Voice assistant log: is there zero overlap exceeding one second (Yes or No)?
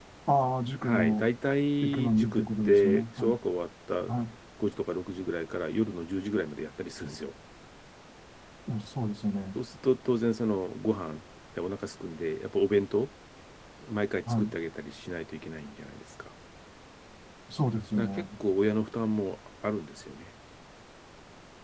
No